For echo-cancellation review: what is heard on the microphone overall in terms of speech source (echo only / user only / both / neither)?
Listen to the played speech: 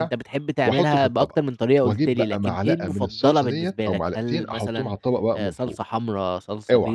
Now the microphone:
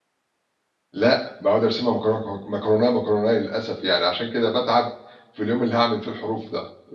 user only